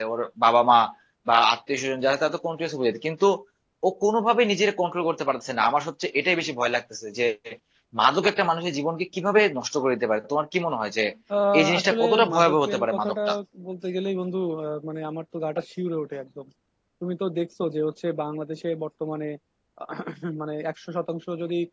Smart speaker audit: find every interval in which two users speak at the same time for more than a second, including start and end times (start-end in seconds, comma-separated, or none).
11.6-13.2